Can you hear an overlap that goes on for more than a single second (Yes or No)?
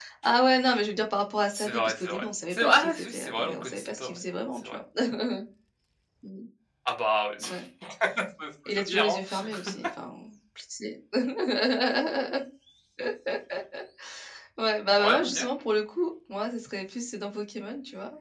Yes